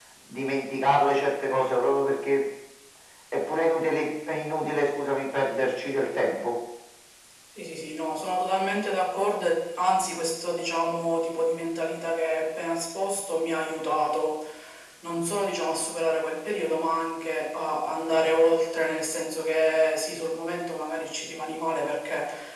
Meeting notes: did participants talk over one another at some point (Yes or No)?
No